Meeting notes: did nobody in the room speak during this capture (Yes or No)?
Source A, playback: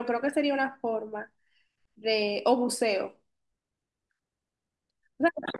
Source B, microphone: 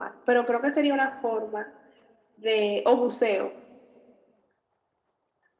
Yes